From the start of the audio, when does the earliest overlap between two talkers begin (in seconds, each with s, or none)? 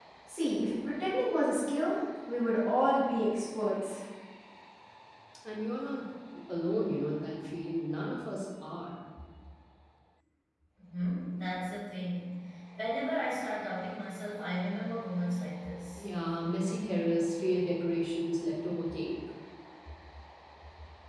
none